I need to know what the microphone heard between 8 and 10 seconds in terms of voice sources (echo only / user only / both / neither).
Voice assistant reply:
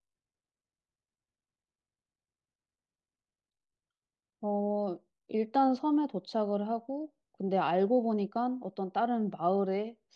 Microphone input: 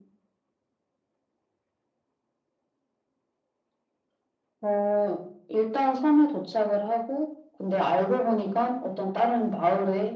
echo only